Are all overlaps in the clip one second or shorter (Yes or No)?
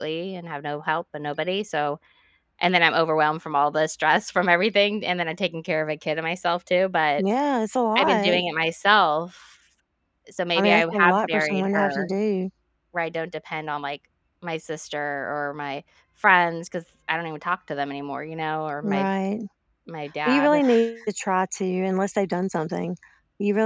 No